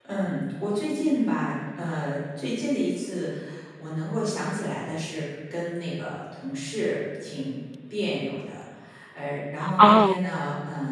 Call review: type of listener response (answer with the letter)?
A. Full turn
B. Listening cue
B